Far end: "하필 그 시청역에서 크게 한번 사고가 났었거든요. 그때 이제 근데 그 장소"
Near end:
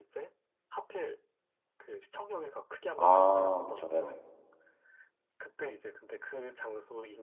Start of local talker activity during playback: 3.0 s

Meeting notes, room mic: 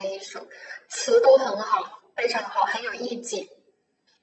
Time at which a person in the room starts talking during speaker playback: none

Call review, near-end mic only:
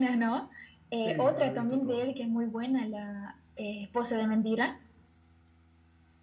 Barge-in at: 1.0 s

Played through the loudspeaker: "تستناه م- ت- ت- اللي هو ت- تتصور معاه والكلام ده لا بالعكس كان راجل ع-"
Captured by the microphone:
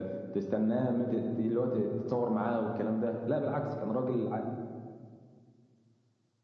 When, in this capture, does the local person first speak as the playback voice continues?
none

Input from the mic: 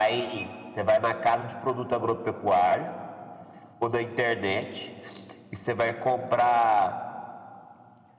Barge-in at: none

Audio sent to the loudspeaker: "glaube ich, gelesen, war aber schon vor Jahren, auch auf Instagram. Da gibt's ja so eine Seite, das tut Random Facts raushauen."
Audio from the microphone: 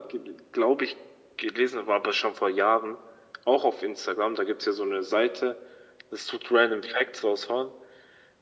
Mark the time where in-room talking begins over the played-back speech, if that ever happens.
none

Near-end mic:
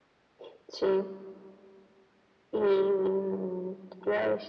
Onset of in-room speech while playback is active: none

